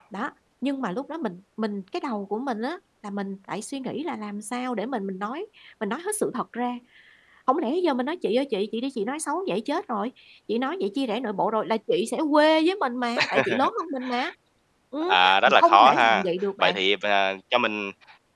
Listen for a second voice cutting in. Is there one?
Yes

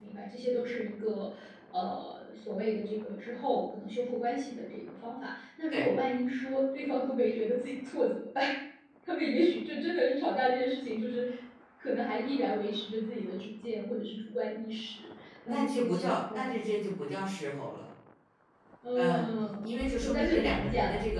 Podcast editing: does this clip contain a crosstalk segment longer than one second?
Yes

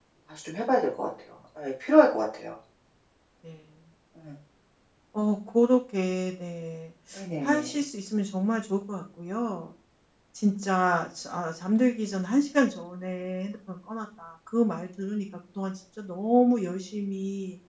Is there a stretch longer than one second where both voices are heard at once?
No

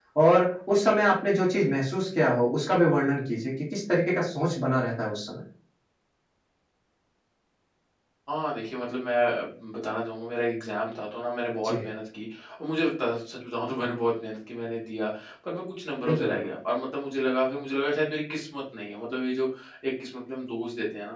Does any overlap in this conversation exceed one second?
No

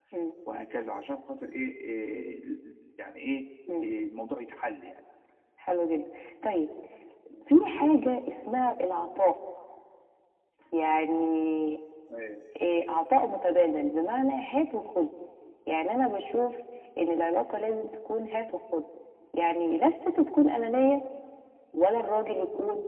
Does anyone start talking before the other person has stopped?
No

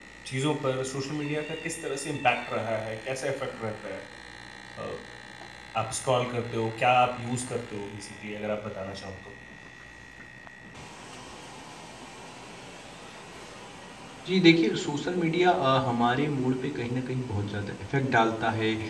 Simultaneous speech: No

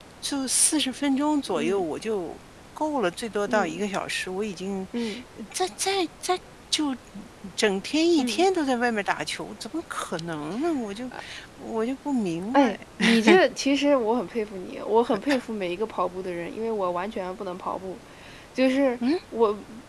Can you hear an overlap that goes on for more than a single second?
No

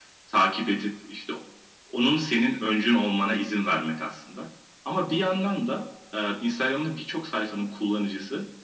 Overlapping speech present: No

